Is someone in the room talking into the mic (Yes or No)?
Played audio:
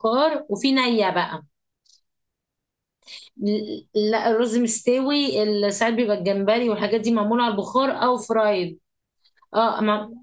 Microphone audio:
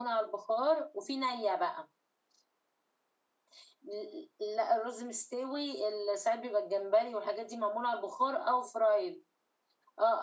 No